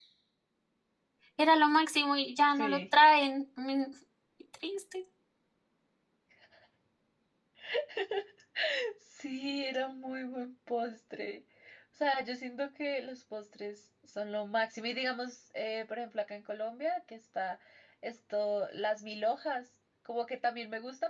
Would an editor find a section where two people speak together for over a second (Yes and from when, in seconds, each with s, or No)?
No